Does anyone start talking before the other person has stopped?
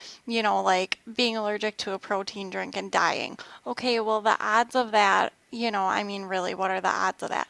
No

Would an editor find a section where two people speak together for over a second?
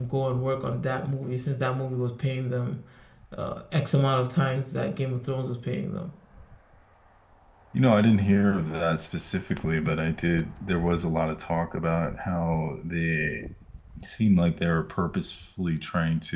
No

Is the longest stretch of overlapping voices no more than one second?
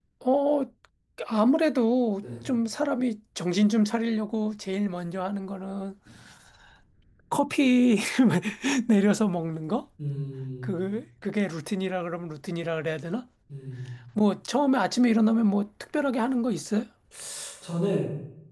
Yes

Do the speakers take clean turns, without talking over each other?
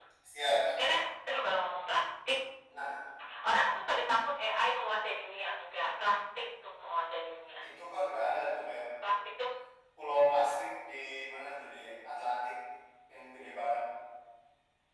Yes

